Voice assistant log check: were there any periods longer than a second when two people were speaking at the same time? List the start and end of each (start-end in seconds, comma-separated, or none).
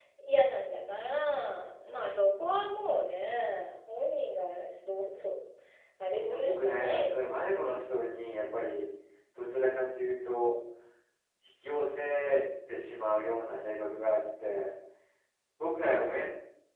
6.1-7.5